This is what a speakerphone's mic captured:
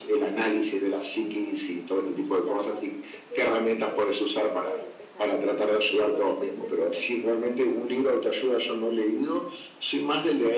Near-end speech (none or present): present